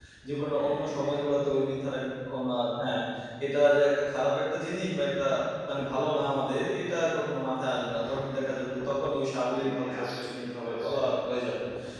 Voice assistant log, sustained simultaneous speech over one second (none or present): present